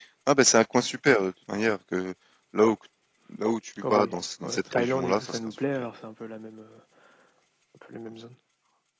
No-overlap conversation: No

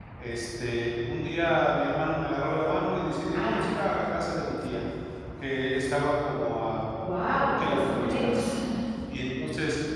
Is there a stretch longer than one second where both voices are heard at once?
Yes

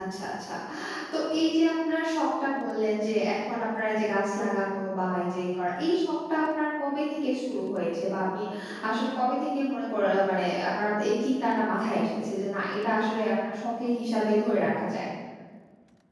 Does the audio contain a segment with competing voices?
No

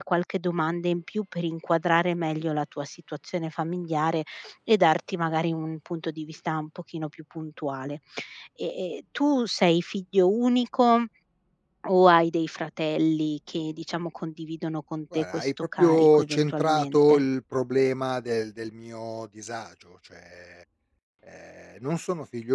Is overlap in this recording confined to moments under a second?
No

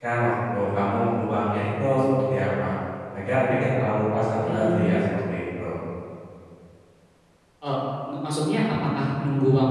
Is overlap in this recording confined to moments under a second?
Yes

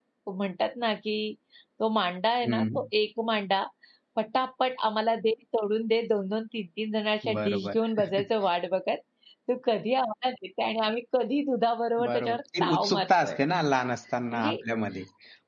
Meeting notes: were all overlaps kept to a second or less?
No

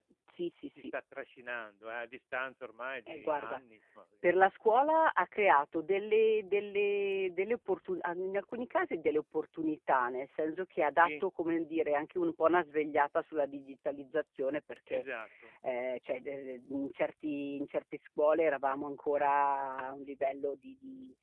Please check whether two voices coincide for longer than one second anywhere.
No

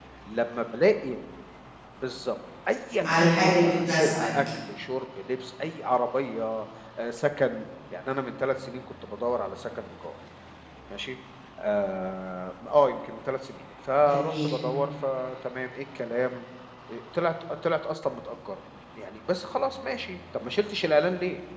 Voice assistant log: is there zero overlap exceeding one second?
No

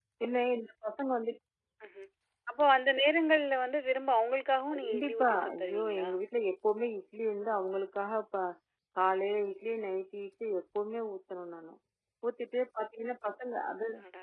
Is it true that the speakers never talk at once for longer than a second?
No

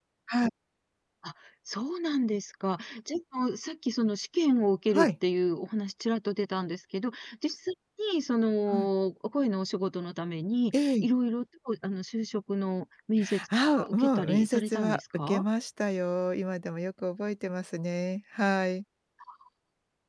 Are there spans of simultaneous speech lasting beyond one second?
Yes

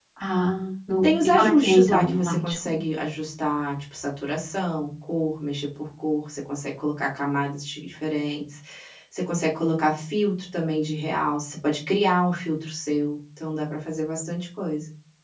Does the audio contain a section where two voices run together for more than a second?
Yes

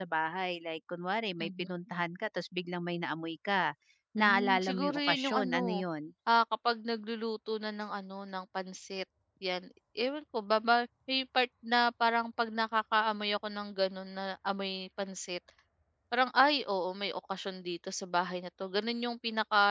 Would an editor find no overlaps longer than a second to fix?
No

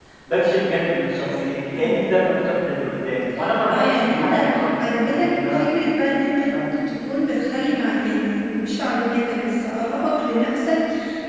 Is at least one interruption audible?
Yes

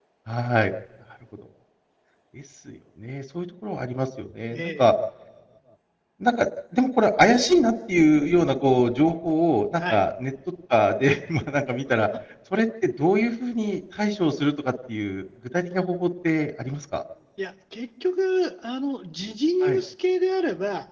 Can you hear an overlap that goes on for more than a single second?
No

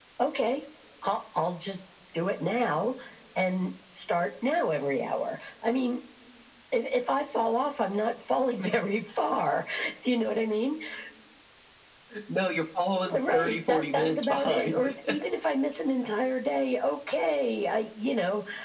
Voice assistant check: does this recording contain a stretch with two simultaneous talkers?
Yes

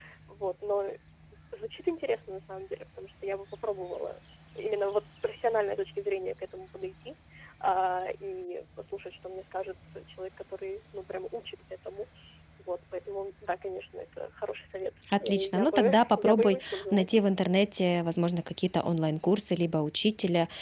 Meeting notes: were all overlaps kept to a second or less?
No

